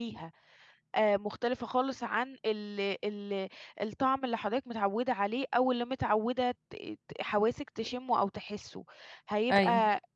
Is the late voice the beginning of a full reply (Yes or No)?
No